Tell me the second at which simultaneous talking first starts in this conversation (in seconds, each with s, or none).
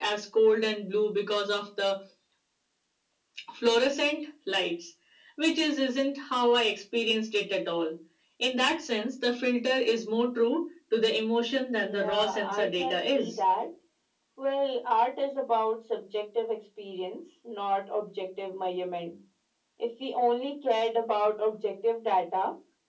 11.8 s